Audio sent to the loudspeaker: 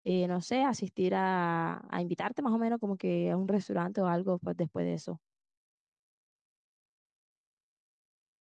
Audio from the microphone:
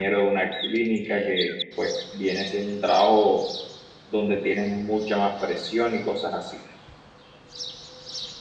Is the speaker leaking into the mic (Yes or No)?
No